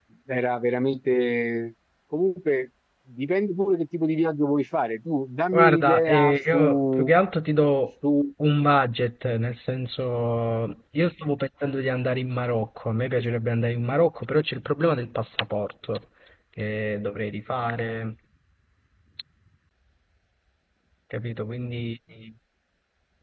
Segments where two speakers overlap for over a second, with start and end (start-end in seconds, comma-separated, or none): 5.5-7.1